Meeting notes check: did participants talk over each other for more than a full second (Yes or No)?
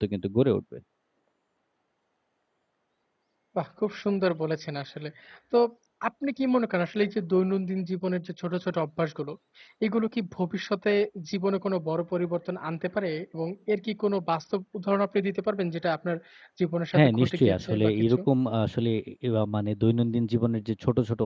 Yes